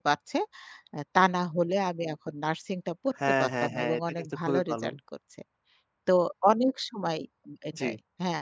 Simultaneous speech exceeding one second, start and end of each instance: 3.4-4.8

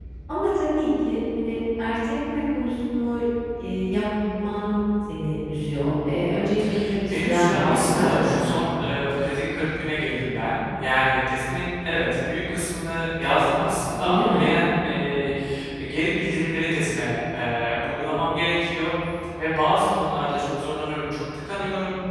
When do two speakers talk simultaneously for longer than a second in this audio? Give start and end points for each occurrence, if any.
7.1-8.9

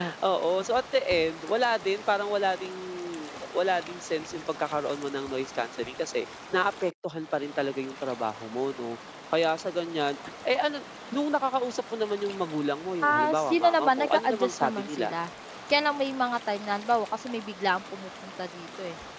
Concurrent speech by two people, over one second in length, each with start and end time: 13.0-15.1

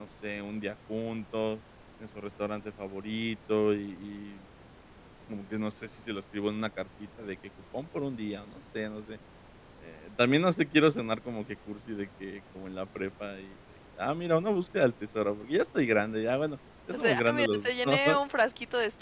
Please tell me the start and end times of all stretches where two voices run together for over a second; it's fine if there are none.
16.9-18.2

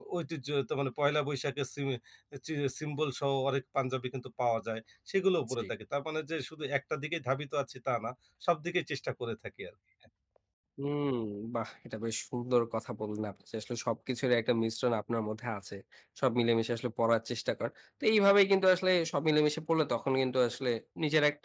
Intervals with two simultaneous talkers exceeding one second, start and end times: none

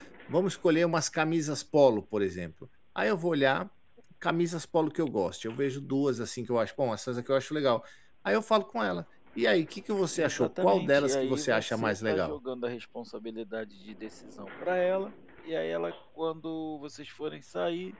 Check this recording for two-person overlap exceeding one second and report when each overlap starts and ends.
10.2-12.4

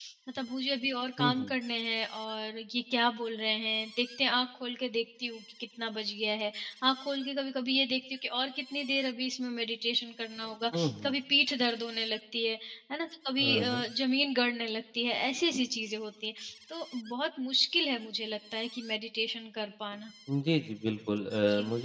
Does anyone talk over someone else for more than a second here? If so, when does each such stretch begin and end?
none

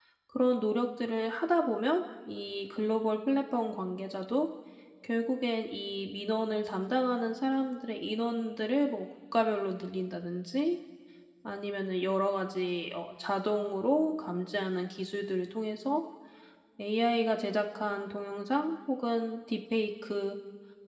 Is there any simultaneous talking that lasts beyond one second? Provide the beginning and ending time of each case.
none

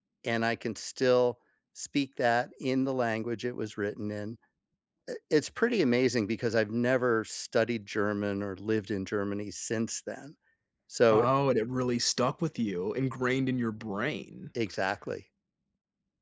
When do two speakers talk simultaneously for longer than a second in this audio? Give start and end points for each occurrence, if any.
none

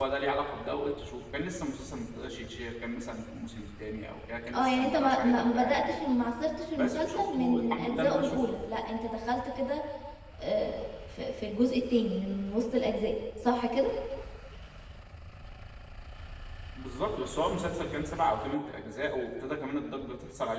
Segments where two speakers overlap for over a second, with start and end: 4.5-5.8, 6.8-8.4

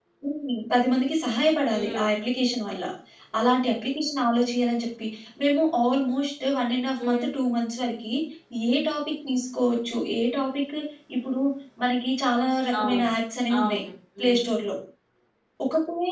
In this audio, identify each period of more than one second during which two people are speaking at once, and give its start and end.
none

